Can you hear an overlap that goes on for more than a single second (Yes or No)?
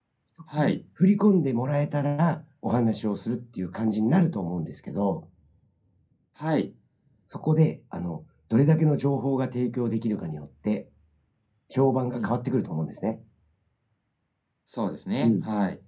No